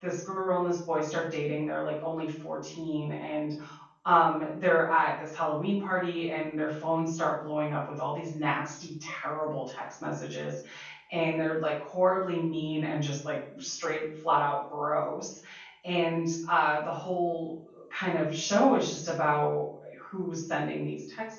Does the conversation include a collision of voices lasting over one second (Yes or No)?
No